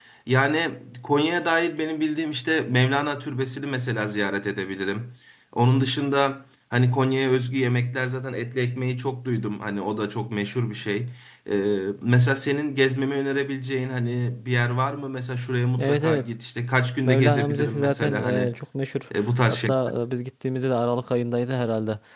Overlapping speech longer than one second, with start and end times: 17.1-18.5

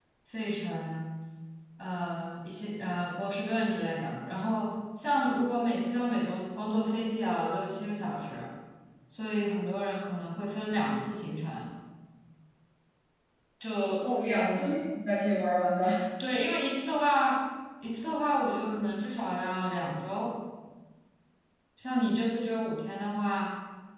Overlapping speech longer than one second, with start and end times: none

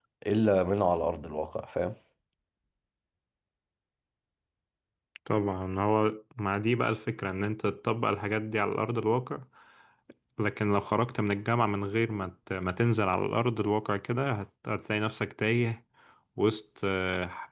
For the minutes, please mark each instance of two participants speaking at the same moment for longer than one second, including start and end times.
none

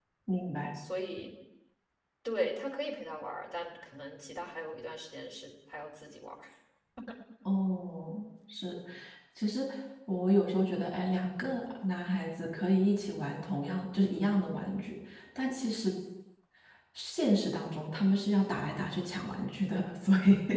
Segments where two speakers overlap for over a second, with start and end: none

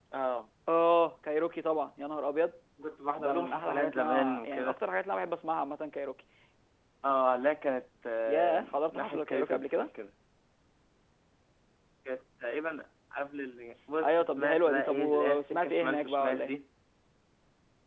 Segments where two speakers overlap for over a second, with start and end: 3.2-4.8, 8.3-9.9, 14.0-16.6

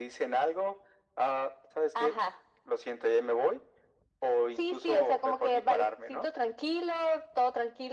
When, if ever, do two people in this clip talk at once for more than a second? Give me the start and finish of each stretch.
4.6-6.3

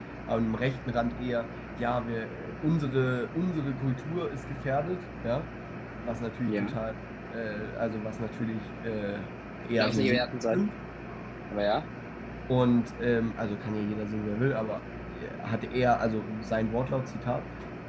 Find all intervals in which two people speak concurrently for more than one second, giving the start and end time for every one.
none

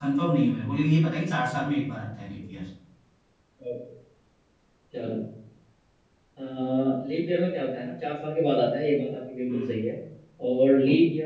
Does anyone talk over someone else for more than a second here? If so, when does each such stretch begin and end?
none

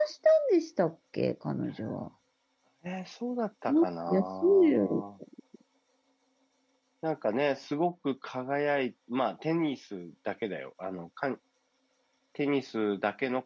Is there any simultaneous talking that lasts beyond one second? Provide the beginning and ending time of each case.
3.7-5.0

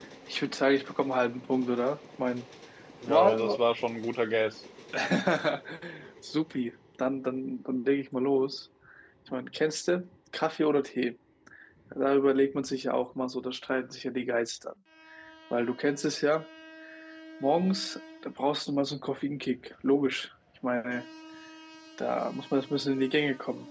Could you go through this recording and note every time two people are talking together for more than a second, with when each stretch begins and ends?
none

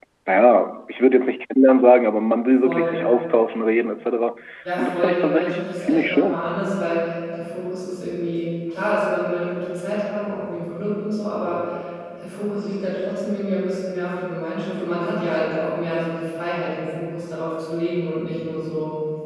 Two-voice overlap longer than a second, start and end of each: 4.8-6.4

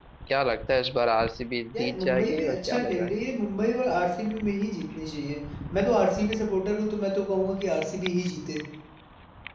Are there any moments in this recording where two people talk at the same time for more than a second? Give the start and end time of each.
1.7-3.1

